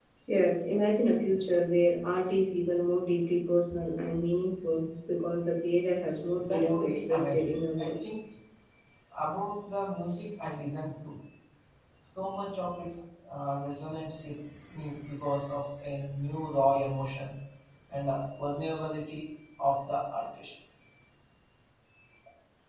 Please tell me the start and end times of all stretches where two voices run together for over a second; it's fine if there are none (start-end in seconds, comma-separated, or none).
6.4-8.0